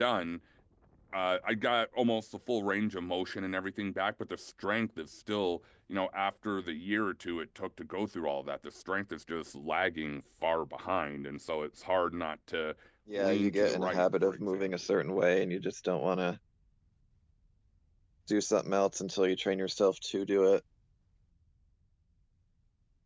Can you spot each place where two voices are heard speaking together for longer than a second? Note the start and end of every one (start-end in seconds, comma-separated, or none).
13.1-14.9